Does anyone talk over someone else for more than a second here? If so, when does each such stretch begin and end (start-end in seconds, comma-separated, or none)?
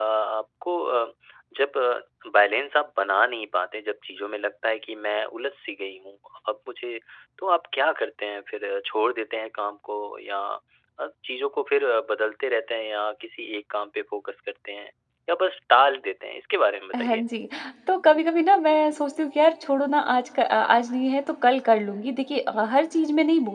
none